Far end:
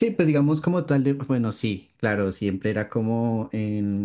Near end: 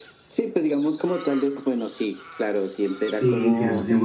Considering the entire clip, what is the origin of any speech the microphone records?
both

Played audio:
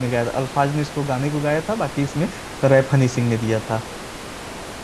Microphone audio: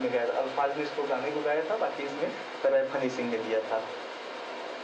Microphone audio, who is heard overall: echo only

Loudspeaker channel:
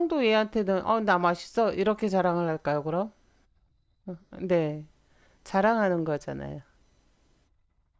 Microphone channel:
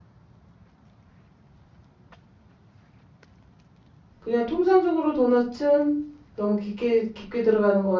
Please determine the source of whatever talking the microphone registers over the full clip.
user only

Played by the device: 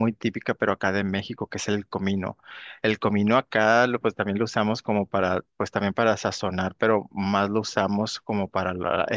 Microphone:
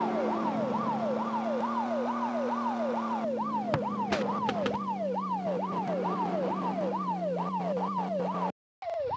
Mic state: neither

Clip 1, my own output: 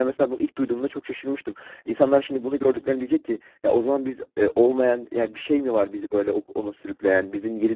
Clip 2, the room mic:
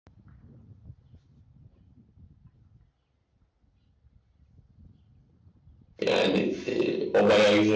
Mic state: user only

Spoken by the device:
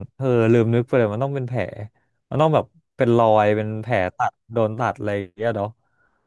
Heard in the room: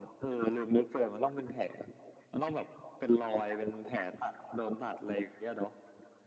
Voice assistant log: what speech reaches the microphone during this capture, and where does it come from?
echo only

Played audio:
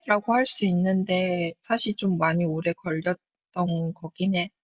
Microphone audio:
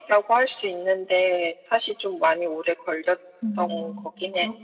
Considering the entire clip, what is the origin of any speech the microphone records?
both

